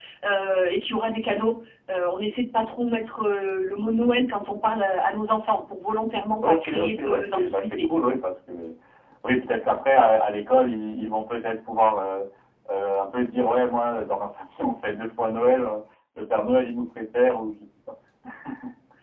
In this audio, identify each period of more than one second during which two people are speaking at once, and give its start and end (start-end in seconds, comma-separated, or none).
6.5-7.9